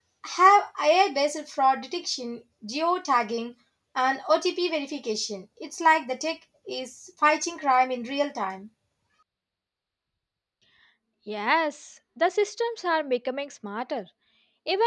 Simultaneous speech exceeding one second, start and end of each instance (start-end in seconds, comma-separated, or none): none